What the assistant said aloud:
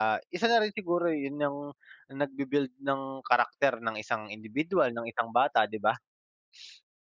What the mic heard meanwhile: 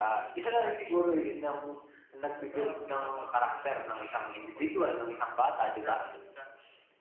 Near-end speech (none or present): present